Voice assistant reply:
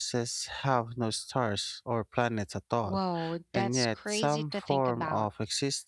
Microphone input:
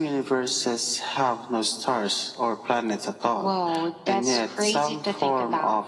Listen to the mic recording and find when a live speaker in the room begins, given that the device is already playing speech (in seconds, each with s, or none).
none